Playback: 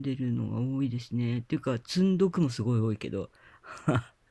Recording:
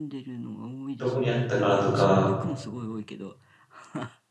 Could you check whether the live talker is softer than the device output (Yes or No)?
No